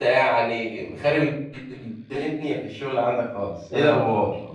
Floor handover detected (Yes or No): Yes